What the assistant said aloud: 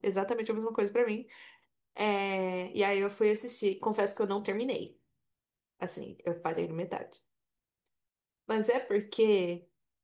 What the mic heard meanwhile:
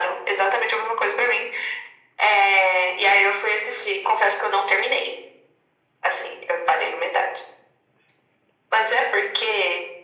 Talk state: echo only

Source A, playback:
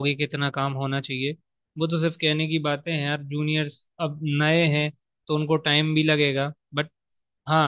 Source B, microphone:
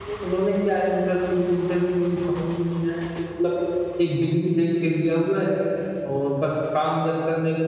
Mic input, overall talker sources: user only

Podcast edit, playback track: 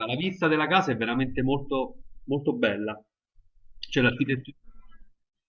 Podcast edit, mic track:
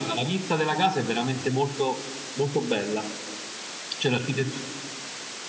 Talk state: echo only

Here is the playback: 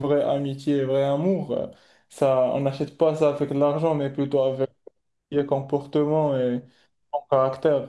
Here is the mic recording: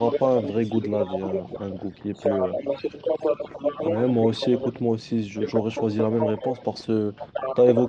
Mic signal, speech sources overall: both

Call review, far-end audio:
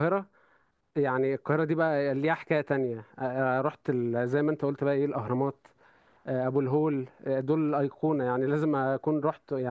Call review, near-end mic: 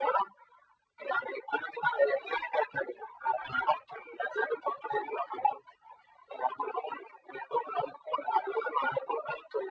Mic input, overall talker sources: echo only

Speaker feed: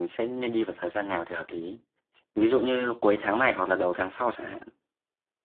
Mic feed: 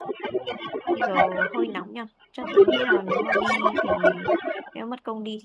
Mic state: both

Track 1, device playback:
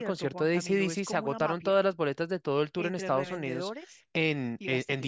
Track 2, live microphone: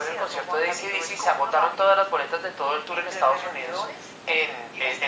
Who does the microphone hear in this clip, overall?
echo only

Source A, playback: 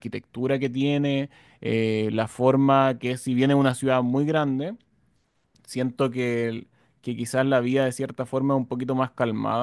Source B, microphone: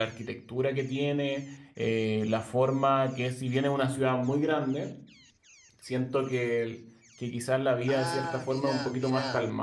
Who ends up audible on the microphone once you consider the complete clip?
both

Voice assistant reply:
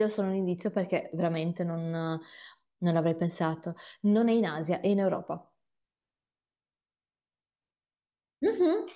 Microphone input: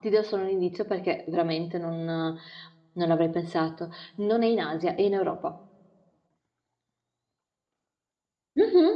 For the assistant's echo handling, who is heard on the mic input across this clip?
echo only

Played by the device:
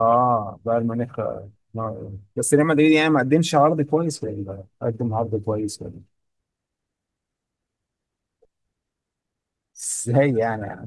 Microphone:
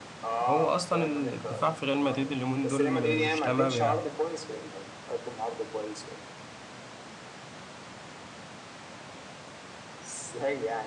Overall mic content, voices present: both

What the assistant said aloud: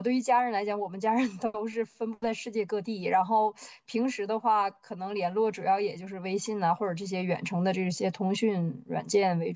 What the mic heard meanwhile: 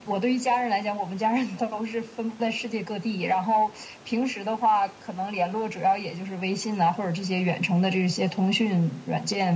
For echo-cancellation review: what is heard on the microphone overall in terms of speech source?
echo only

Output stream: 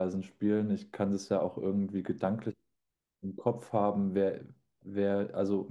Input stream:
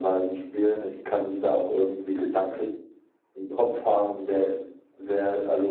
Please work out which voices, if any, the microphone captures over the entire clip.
echo only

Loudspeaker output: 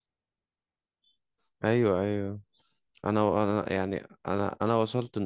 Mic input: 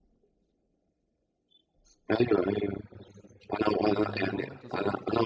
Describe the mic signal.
both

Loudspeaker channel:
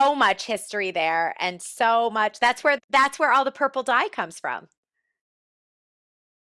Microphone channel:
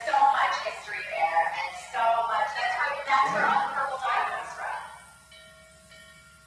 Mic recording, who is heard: both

